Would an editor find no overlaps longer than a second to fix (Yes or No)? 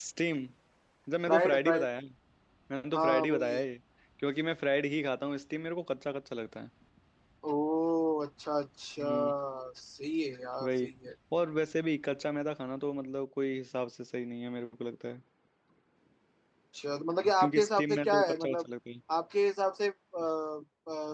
No